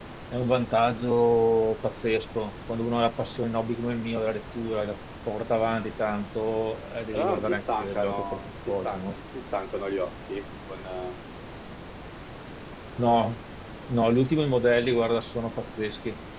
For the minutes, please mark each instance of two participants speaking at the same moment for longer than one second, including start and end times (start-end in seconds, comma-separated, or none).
7.1-9.0